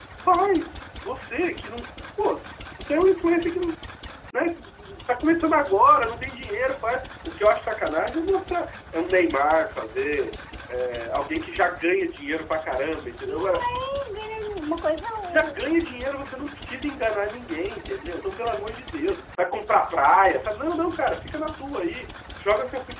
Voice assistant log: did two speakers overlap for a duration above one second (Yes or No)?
No